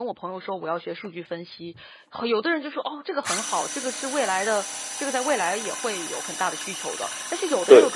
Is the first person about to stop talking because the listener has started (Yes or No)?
No